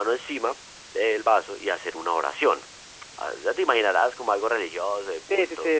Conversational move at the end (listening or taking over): taking over